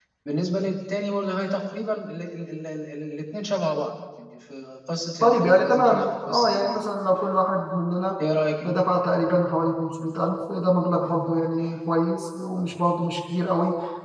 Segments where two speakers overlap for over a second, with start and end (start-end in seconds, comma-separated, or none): 5.2-6.9